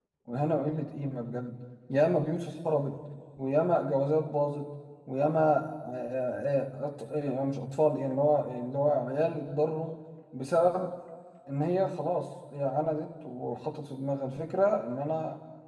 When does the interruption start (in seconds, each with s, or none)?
none